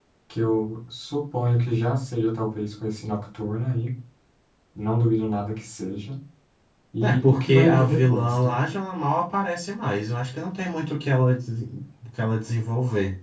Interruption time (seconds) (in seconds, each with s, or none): 7.0 s